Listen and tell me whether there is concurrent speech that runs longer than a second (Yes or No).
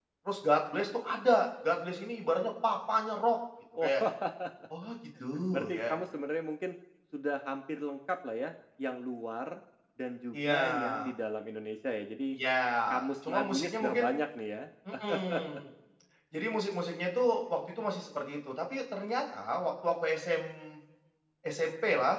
Yes